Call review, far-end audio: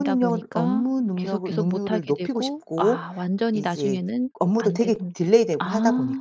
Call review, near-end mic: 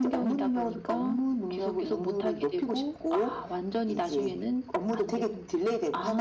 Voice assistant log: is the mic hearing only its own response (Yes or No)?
Yes